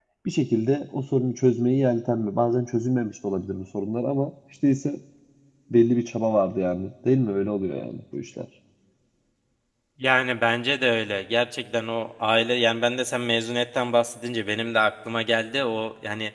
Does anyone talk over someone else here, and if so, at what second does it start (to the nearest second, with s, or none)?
none